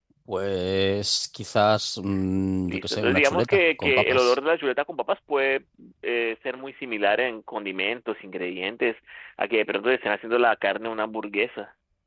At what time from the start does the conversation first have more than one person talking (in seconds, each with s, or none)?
2.7 s